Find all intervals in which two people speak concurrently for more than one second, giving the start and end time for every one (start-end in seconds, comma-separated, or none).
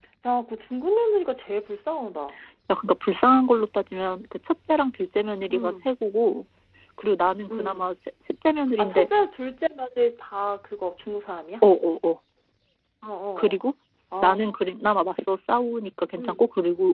none